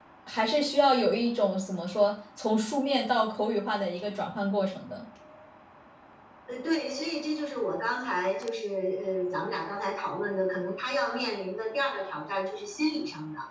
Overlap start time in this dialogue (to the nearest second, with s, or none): none